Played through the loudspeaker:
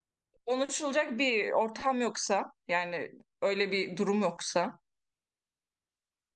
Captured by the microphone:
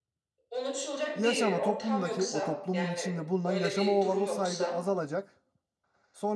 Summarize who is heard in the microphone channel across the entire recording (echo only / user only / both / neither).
both